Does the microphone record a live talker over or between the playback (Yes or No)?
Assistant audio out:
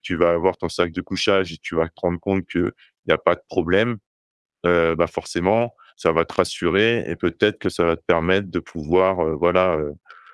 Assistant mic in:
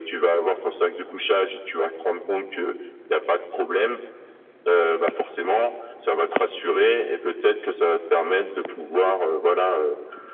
No